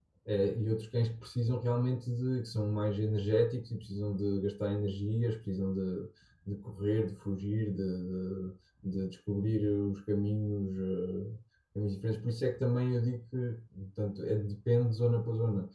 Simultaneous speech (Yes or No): No